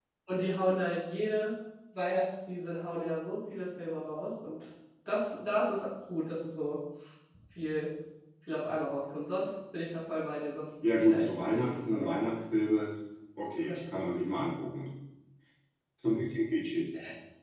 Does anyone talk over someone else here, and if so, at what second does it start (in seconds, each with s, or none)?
10.8 s